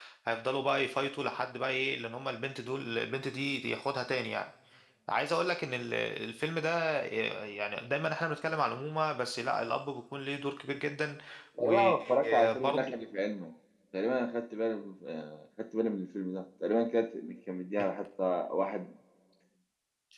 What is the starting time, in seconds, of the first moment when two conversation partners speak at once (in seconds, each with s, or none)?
11.6 s